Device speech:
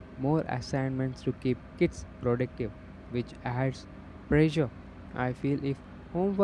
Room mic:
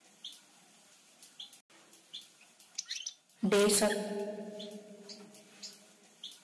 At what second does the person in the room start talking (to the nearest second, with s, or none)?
3 s